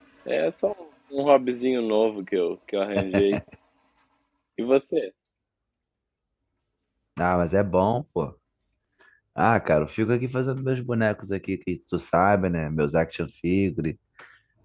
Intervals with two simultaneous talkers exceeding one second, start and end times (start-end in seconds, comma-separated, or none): none